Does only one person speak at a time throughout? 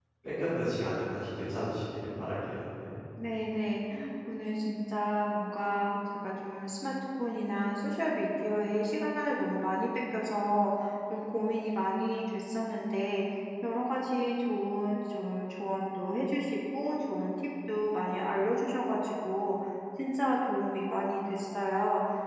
Yes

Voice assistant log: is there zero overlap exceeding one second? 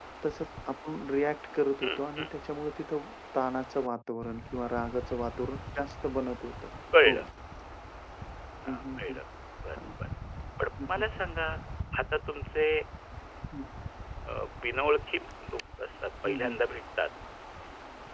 Yes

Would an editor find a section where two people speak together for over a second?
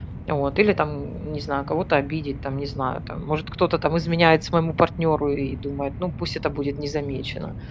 No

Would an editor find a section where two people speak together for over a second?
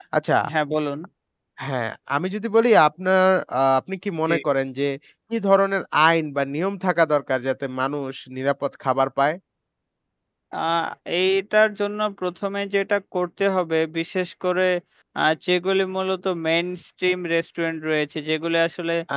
No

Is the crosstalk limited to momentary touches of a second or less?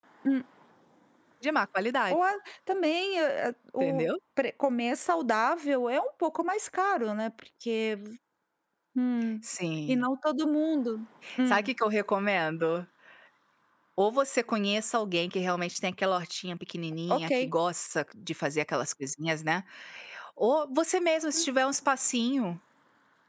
Yes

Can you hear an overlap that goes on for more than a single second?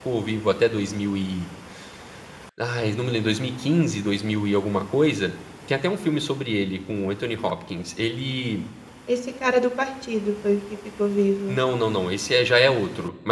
No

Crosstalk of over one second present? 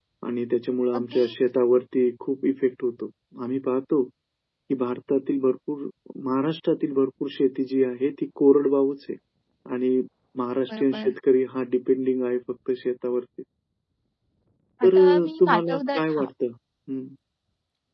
Yes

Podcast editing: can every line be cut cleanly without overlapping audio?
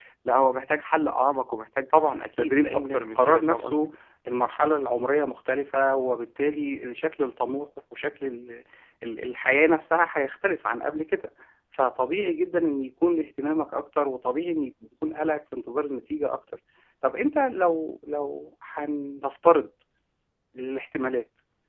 No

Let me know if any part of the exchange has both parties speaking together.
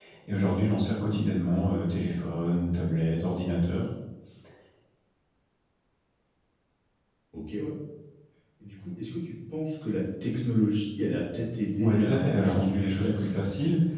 Yes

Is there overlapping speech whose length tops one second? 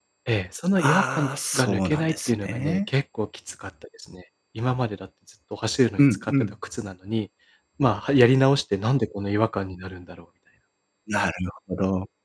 Yes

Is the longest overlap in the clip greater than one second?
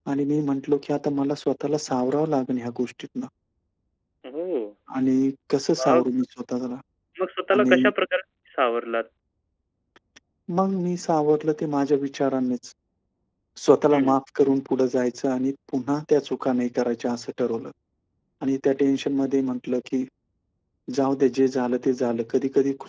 No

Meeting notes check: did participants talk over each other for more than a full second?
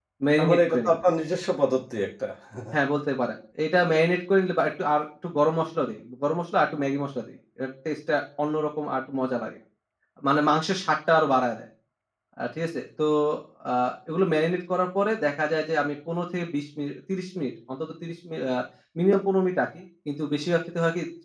No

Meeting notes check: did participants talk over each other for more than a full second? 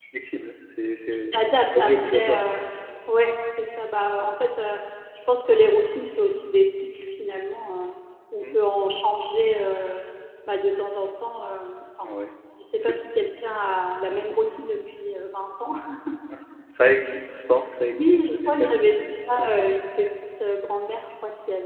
Yes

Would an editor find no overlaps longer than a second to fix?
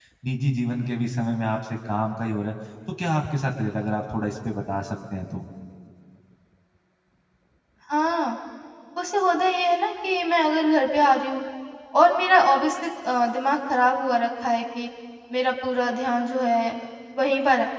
Yes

